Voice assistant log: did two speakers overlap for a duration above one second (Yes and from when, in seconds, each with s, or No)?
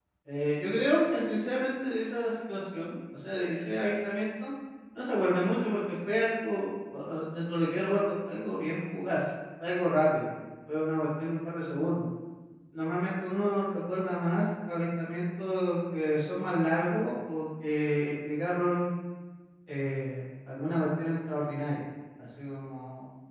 No